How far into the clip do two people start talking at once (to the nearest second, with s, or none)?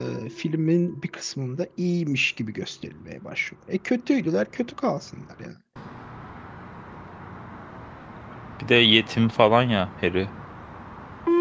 none